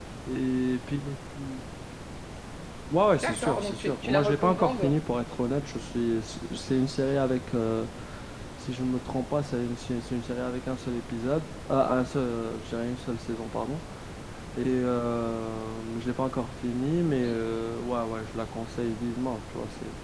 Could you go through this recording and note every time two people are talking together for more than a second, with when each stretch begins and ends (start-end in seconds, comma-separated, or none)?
3.2-4.9